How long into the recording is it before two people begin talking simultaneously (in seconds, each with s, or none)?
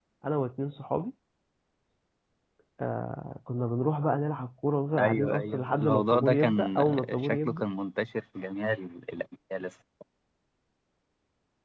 5.0 s